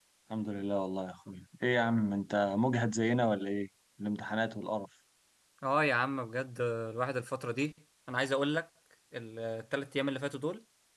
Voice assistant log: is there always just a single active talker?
Yes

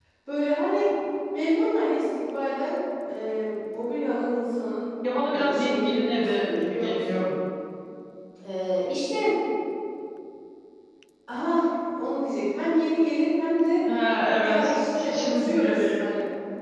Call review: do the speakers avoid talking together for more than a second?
No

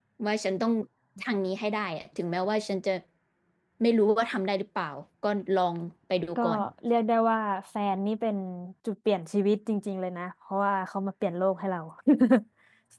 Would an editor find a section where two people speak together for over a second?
No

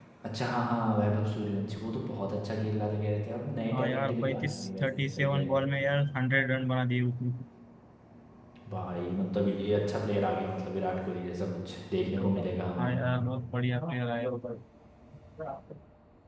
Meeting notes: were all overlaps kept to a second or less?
No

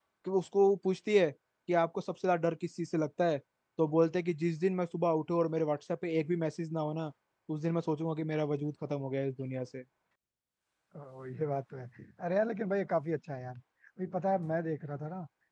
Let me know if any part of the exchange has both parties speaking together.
No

